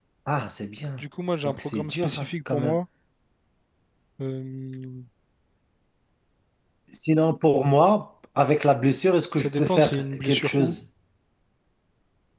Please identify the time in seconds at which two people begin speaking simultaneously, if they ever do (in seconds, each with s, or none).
1.4 s